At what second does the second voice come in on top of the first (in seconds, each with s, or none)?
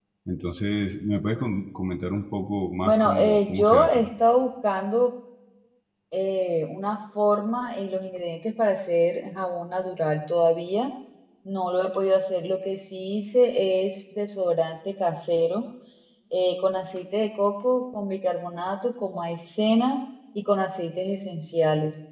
2.8 s